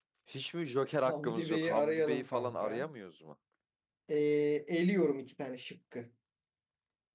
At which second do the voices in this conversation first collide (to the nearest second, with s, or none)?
1 s